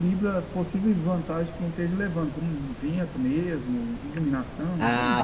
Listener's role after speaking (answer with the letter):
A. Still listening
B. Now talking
B